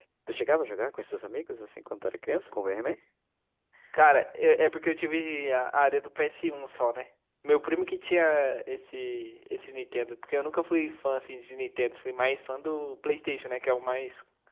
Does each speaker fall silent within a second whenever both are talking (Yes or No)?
Yes